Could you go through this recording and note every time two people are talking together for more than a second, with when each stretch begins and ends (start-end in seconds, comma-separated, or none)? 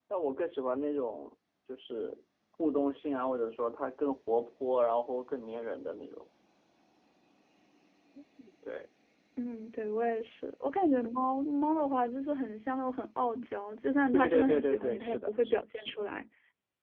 14.1-16.0